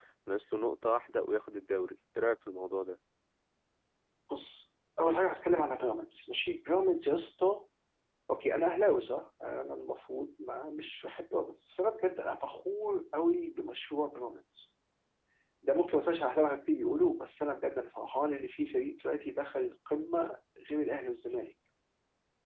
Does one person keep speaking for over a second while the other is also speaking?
No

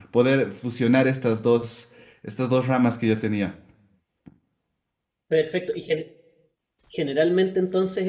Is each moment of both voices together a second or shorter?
Yes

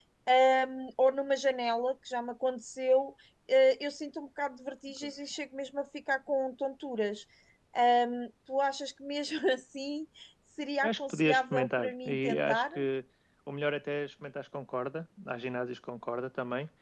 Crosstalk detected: Yes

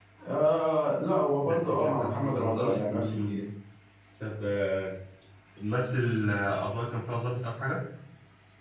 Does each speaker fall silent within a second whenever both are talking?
No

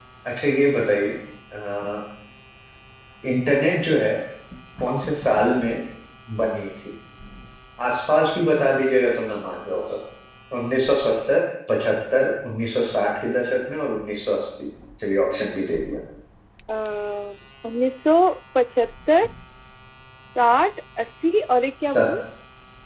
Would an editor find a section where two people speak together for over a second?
No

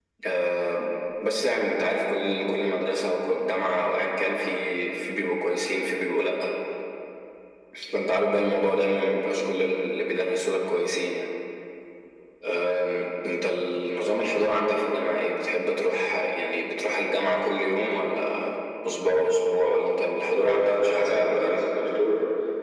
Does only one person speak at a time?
No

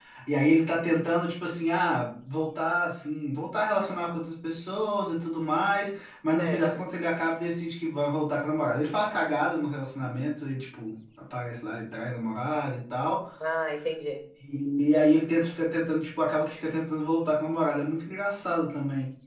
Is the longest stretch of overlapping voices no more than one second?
Yes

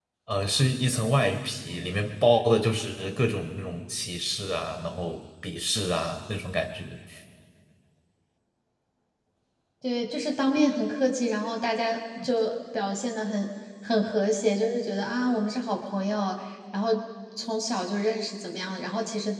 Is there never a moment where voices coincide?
Yes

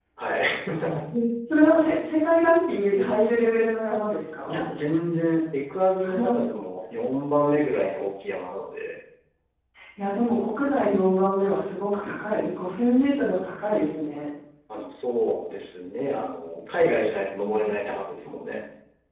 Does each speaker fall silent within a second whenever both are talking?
Yes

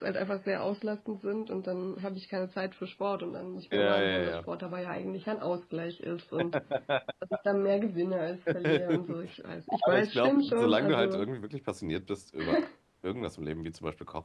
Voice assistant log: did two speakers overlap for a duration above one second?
Yes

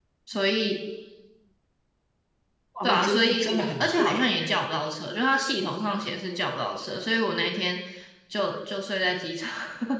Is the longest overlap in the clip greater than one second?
Yes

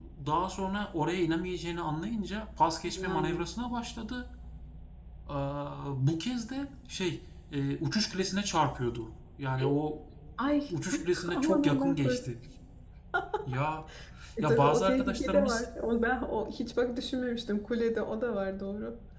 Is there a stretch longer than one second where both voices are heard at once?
Yes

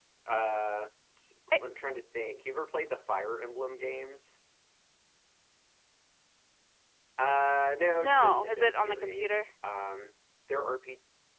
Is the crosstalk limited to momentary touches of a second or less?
No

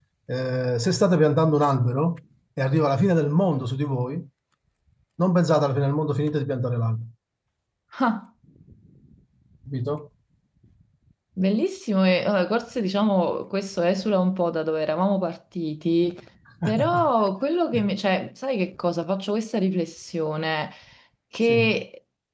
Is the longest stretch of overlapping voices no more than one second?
Yes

